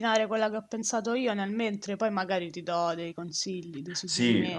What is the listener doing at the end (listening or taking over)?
taking over